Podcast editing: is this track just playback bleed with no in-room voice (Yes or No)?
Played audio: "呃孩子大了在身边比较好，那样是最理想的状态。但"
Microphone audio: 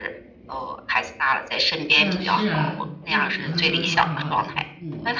No